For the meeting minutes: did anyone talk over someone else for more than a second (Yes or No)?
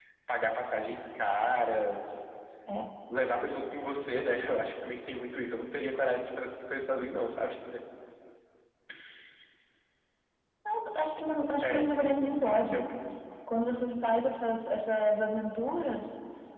No